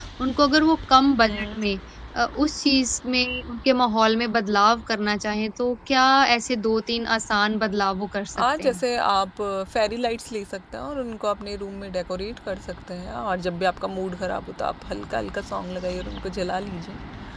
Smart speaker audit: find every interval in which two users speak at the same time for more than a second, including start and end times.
none

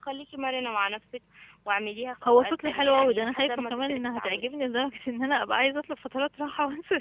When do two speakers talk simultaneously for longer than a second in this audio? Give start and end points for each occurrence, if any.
2.2-4.4

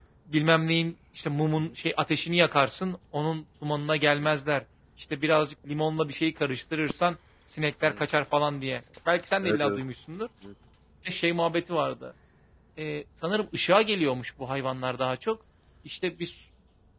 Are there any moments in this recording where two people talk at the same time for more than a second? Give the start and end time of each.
none

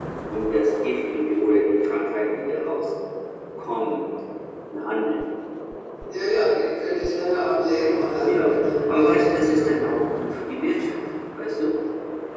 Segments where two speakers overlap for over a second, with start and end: 8.2-9.9

